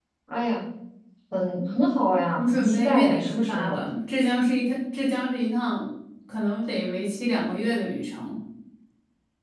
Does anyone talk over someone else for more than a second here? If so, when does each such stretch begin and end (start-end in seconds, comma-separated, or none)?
2.4-3.8